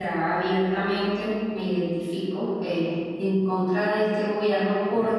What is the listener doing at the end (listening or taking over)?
listening